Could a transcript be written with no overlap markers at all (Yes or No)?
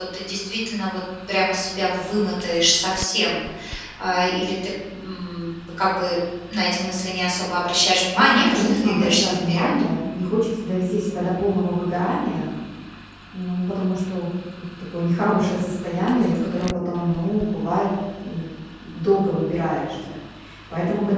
No